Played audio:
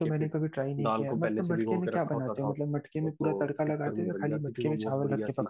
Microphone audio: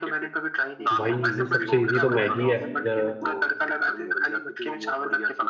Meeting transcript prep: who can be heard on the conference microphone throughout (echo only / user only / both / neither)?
both